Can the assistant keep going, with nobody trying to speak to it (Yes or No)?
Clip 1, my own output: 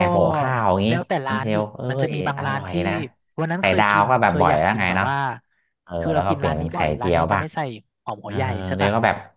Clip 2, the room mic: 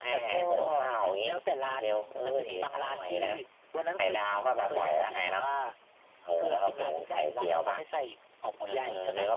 Yes